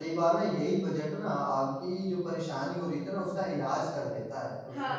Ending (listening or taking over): taking over